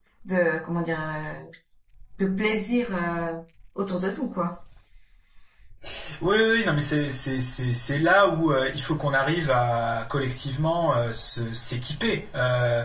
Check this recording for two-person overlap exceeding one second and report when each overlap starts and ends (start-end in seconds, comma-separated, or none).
none